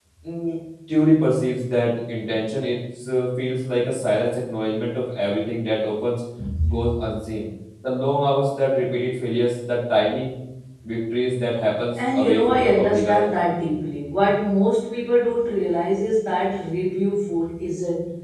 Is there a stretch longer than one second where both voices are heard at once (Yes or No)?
Yes